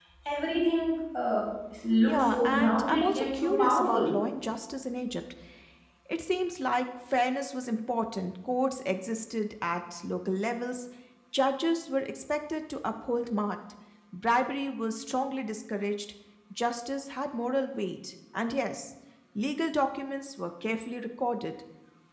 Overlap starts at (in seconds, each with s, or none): 2.0 s